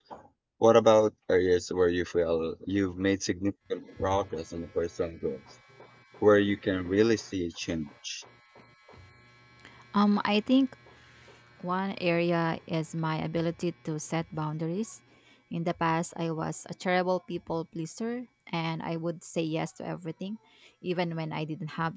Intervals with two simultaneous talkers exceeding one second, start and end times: none

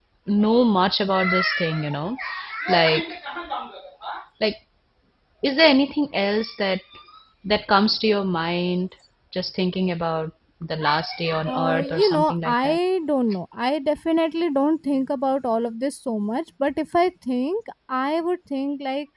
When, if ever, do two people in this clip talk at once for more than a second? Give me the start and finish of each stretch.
11.5-12.8

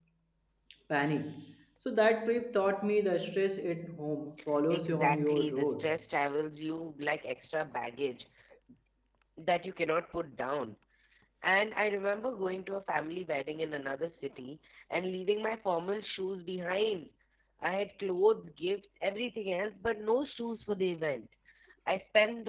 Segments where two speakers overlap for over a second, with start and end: 4.7-6.0

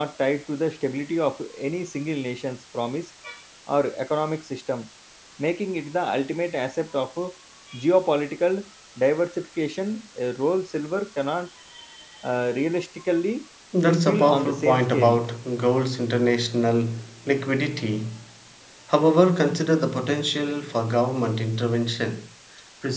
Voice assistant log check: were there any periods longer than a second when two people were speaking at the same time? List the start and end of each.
13.9-15.2

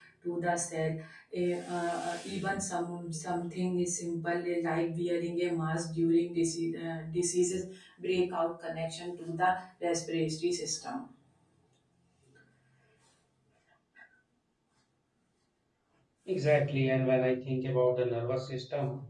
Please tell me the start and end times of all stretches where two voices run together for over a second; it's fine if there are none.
none

